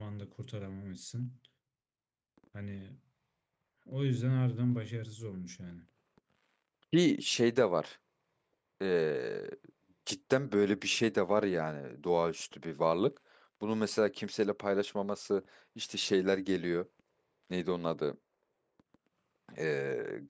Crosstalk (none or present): none